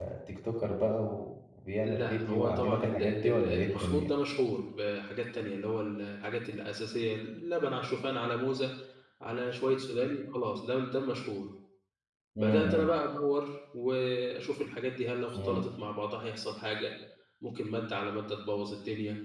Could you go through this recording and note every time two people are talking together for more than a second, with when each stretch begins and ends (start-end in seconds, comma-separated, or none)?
1.8-4.1